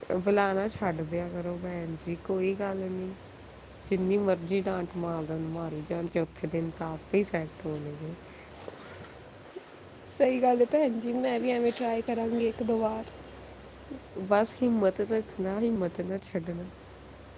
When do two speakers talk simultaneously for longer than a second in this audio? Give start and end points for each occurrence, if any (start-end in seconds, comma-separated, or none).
none